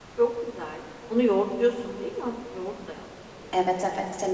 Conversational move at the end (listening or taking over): taking over